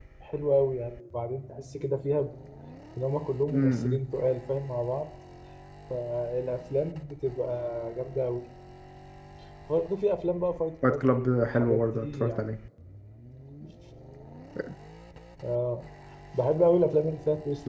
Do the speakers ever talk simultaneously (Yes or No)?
Yes